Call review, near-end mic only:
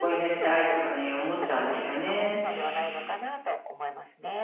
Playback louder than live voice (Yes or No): No